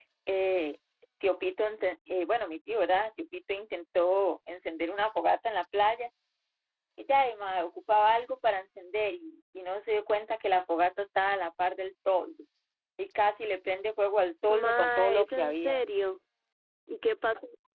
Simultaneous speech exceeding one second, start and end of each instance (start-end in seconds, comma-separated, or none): 14.5-15.8